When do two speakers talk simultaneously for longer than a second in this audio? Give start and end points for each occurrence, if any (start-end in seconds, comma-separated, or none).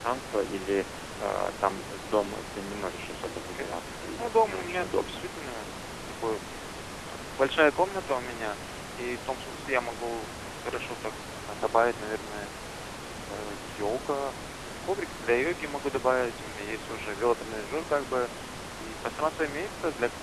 3.4-5.3